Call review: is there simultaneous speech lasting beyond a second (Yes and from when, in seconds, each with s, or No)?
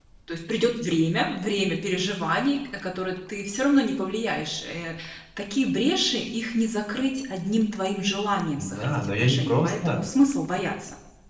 Yes, from 8.6 s